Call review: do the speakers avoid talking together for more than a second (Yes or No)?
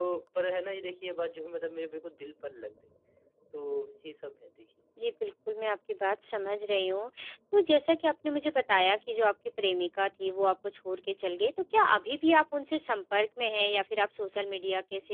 Yes